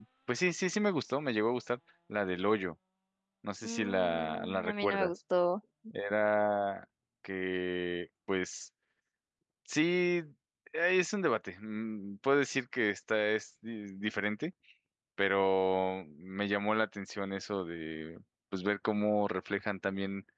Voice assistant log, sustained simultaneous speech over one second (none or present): present